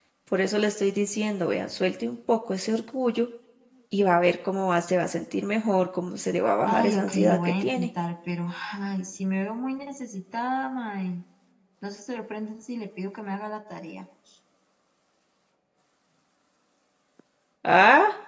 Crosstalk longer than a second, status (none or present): present